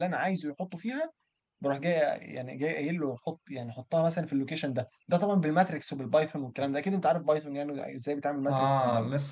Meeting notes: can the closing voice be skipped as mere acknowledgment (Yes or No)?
No